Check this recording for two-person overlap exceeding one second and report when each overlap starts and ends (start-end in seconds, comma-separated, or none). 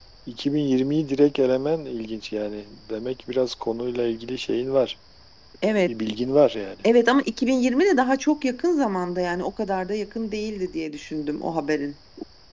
none